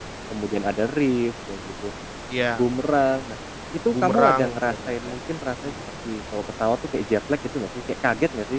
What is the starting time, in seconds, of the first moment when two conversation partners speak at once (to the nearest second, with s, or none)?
4 s